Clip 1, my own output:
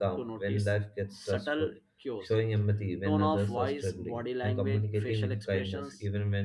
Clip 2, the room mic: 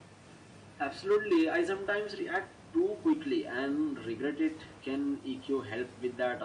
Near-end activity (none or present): present